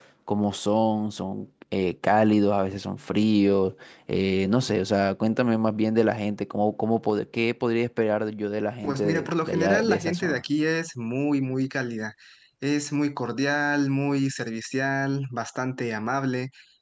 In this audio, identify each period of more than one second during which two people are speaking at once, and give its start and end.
8.8-10.4

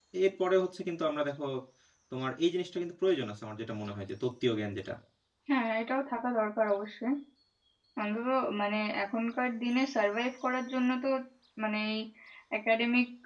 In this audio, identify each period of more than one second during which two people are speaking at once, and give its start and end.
none

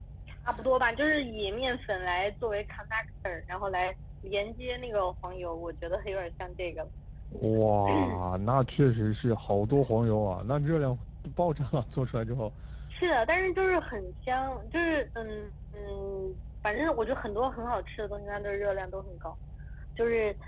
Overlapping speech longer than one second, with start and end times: none

